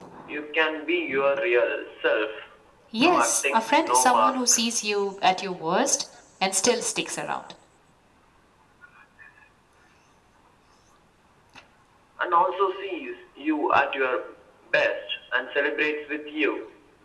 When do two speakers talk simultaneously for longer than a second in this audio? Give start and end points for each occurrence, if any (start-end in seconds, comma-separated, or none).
3.0-4.4